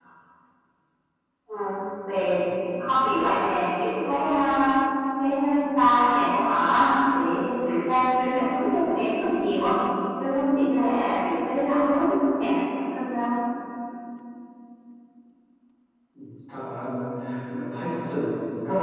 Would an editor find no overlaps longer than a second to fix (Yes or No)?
Yes